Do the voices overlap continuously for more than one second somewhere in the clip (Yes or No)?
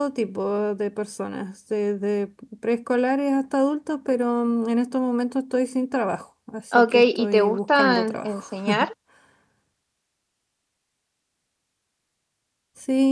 Yes